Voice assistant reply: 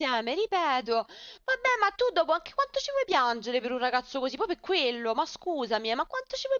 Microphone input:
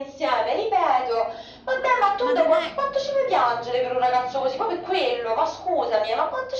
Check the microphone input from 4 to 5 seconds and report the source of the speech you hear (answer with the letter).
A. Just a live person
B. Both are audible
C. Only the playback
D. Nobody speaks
C